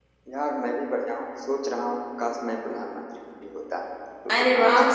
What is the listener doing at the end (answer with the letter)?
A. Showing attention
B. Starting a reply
B